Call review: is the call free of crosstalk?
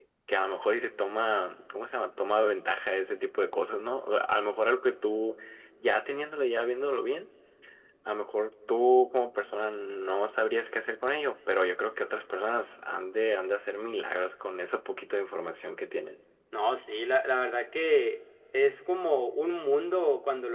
Yes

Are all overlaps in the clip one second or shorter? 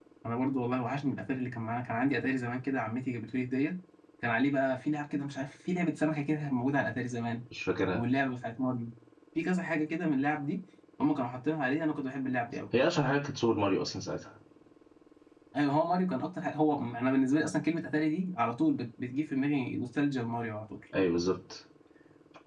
Yes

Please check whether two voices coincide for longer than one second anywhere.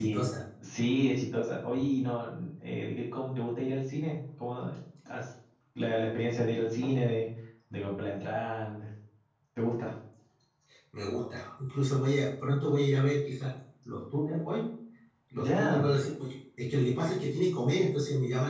No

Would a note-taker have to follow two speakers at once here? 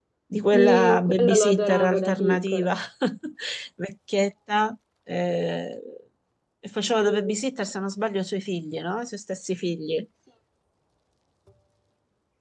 Yes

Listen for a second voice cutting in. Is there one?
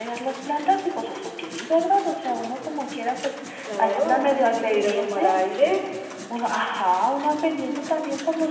Yes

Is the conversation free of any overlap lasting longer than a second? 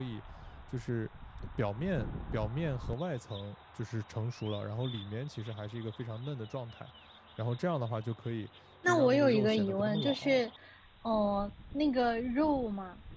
No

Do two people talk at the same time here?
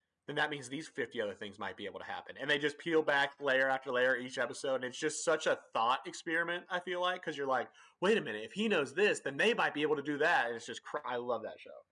No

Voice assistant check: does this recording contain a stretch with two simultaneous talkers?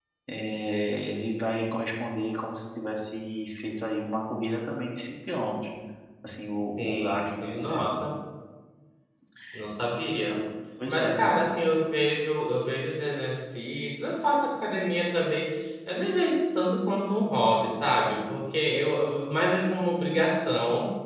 Yes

